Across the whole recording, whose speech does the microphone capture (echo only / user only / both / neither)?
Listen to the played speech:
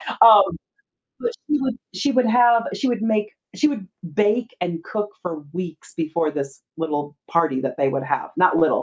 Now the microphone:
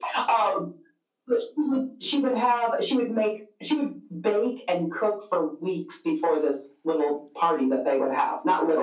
echo only